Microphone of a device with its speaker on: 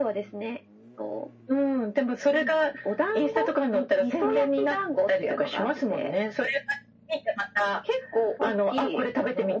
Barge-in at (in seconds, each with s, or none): none